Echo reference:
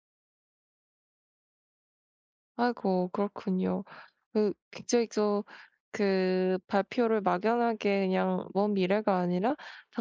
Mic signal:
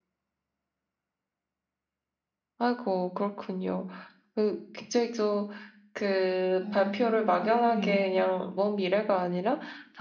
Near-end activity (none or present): present